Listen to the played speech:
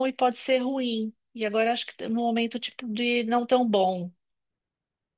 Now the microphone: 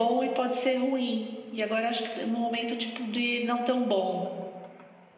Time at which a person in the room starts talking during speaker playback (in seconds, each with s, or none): none